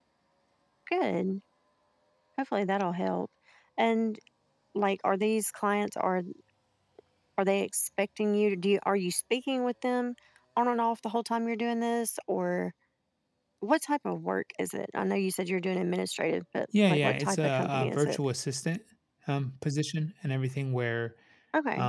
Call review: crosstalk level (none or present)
present